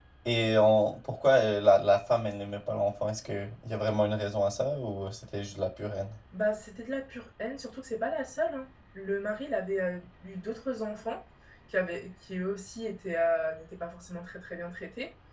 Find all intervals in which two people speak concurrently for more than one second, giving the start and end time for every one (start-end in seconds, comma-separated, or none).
none